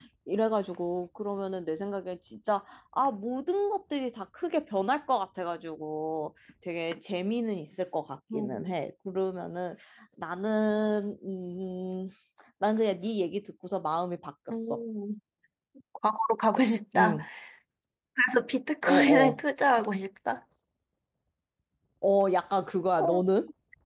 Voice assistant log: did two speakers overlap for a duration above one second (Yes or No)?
No